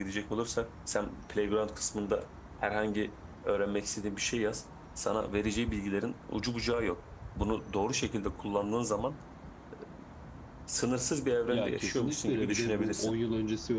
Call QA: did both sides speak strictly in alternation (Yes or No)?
No